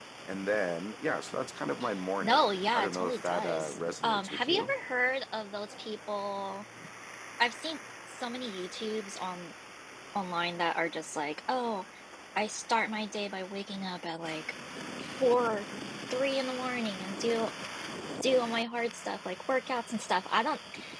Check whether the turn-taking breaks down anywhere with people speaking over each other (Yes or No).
Yes